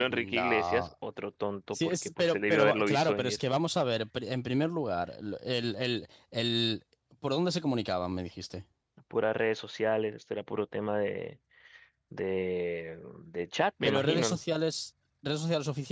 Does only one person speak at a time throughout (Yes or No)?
No